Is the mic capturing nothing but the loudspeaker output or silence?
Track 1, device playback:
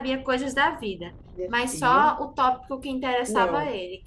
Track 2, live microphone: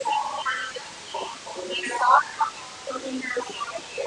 Yes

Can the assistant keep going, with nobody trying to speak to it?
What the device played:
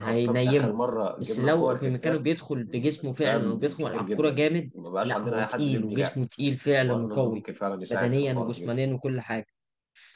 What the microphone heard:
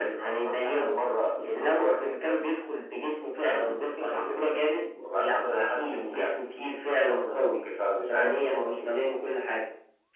Yes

